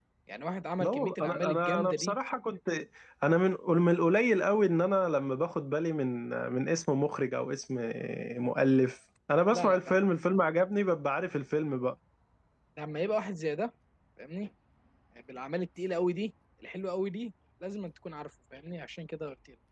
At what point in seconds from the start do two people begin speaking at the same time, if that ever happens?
0.8 s

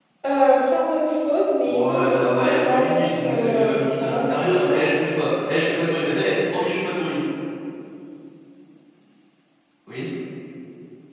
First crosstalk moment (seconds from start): 1.7 s

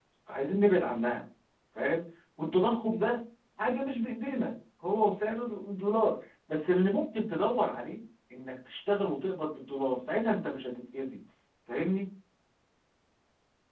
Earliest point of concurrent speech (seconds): none

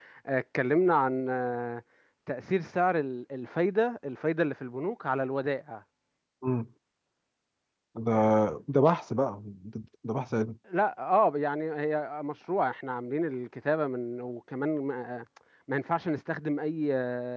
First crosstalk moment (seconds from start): none

